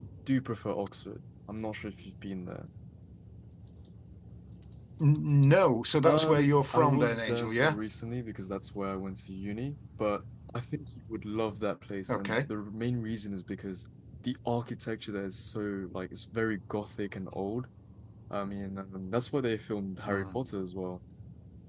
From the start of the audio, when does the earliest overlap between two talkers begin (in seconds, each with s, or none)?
6.0 s